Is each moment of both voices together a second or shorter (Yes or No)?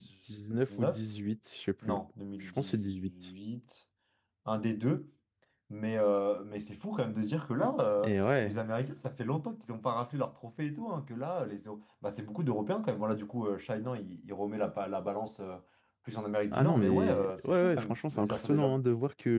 No